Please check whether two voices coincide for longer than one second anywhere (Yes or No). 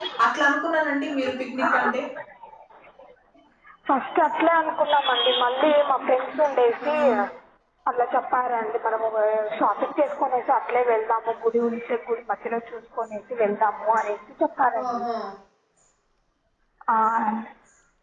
No